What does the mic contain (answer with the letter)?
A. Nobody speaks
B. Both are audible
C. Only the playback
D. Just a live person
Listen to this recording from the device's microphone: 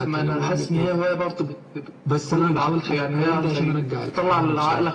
C